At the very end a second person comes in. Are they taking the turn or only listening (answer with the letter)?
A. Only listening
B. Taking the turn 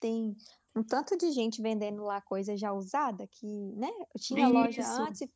A